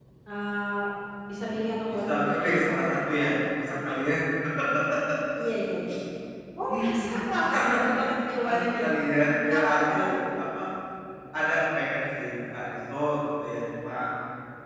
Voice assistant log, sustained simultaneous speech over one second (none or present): present